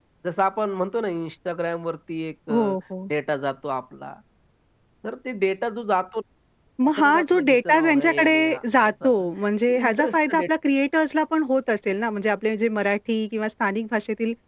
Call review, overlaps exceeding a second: present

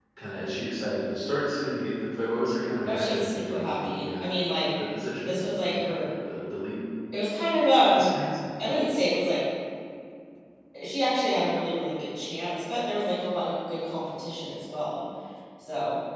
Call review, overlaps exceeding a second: present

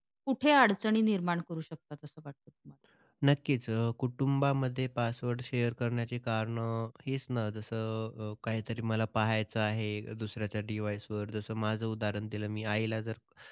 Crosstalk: none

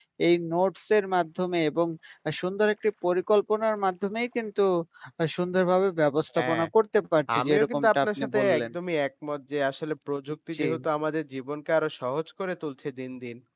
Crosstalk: present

